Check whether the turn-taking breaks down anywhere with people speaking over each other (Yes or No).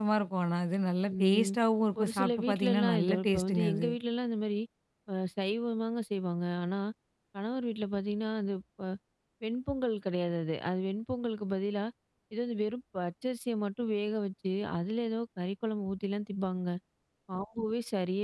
Yes